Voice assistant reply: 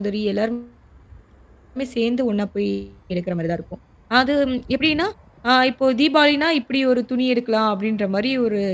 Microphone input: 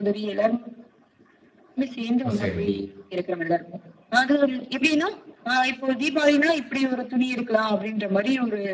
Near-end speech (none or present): present